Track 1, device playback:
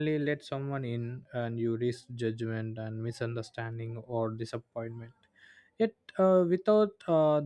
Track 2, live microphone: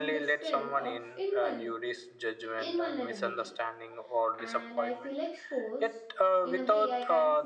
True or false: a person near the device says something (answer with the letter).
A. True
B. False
A